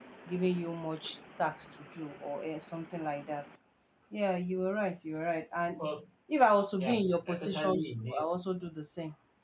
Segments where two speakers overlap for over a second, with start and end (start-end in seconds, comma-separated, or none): 6.8-8.3